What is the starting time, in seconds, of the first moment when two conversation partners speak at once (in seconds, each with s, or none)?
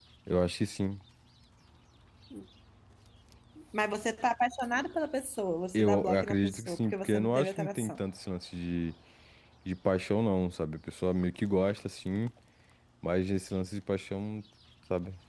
5.7 s